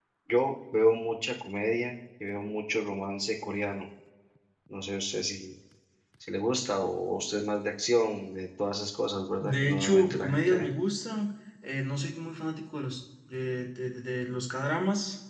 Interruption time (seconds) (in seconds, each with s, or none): 9.4 s